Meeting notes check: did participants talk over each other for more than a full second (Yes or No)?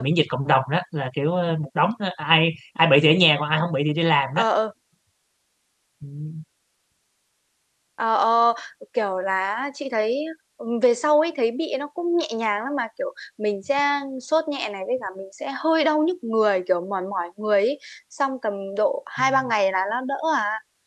No